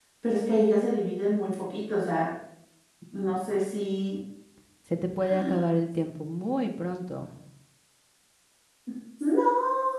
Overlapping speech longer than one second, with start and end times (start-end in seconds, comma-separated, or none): none